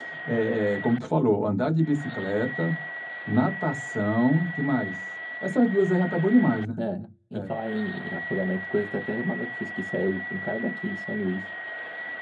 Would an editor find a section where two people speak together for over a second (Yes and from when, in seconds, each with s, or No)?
No